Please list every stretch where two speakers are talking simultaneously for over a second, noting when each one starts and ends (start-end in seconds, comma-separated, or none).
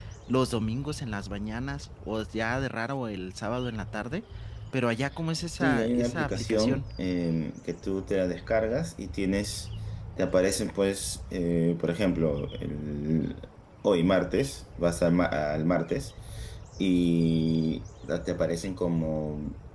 5.6-6.8